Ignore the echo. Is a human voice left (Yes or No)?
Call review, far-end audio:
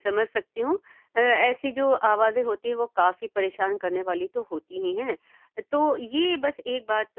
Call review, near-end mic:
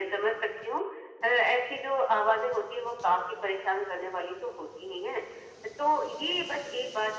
No